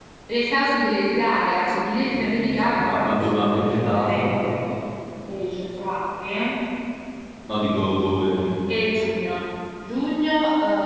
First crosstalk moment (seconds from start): 2 s

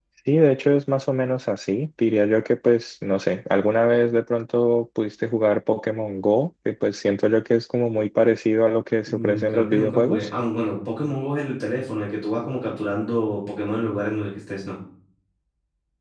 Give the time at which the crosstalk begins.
9 s

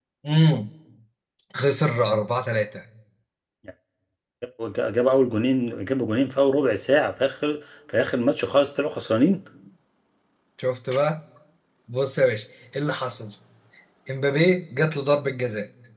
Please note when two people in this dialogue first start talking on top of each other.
none

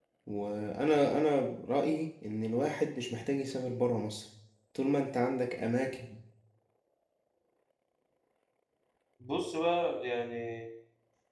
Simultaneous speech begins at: none

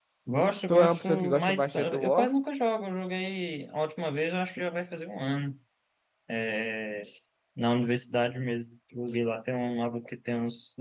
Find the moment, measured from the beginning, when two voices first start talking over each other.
1 s

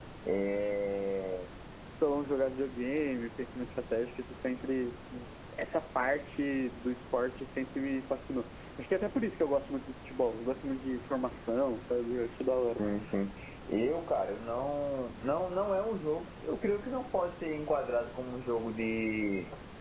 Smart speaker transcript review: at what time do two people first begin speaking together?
none

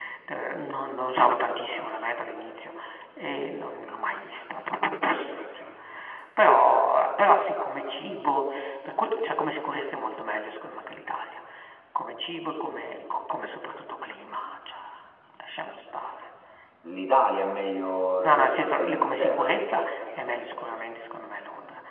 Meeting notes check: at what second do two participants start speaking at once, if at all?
18 s

